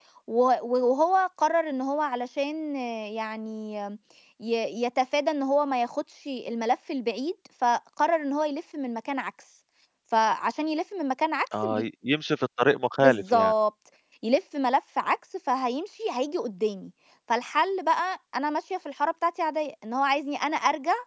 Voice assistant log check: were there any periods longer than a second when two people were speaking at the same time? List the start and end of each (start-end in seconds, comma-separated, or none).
none